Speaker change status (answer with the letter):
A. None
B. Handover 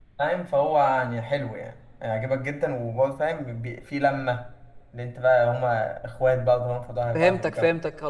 B